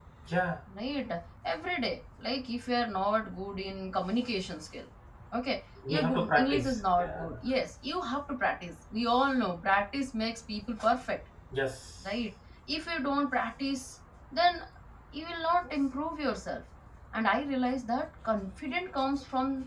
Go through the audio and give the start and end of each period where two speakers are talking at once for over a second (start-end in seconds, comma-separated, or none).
5.9-7.2